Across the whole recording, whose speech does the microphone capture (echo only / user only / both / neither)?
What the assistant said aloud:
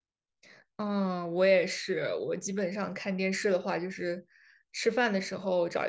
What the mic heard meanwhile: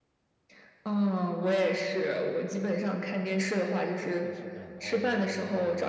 both